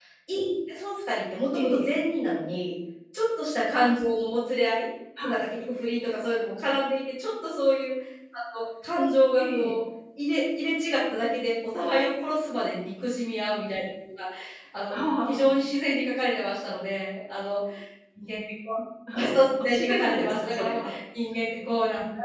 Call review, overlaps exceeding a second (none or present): present